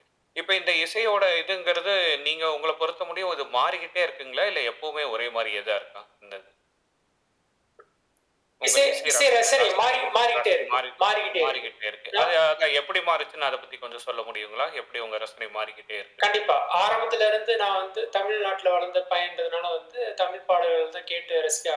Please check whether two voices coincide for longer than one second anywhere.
Yes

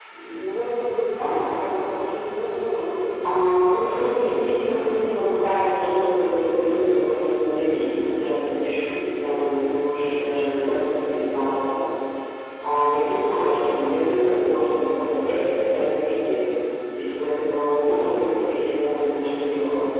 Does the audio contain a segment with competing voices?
Yes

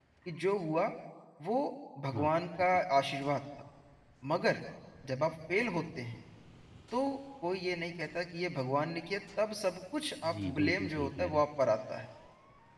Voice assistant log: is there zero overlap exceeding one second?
No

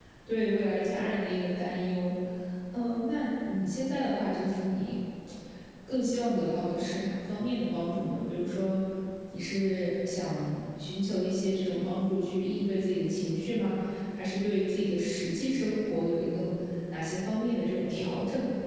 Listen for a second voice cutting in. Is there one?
No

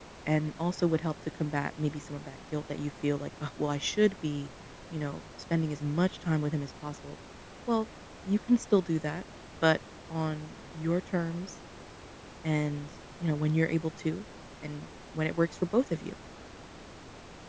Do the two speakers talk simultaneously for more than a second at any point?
No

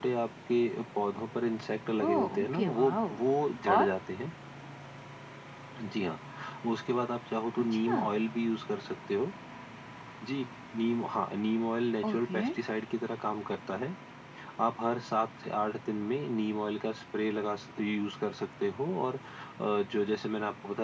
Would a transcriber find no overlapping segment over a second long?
No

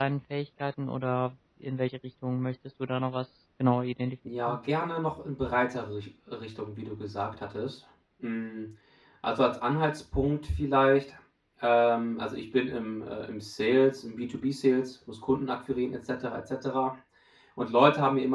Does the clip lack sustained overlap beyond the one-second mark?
Yes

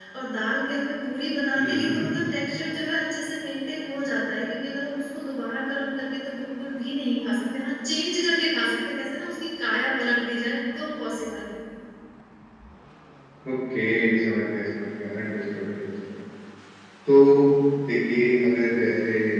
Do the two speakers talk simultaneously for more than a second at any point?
No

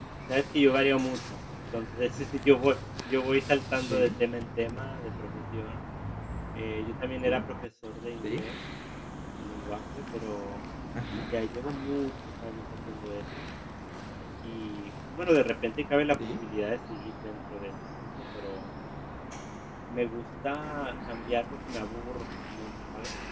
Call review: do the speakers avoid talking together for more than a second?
Yes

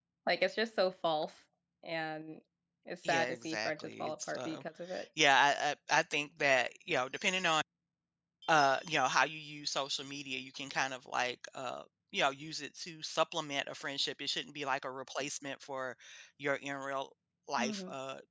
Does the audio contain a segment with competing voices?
Yes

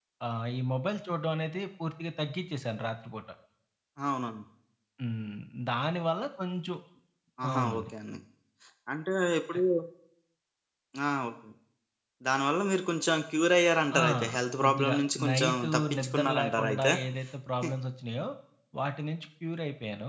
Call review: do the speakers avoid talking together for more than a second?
No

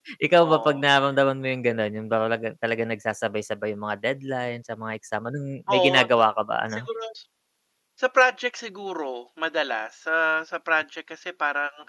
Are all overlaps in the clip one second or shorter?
Yes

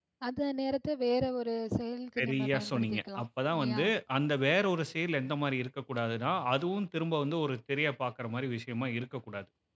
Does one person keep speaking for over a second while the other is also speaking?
Yes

